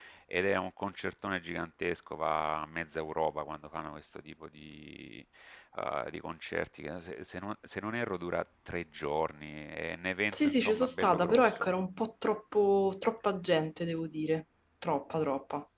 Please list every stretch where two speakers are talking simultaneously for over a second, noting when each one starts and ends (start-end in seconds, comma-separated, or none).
10.3-11.7